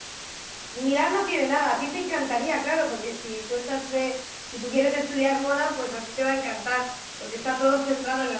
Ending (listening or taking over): listening